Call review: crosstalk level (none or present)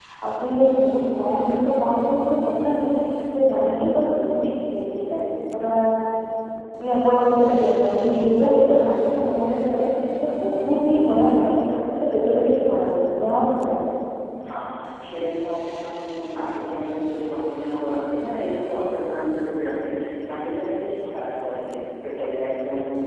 none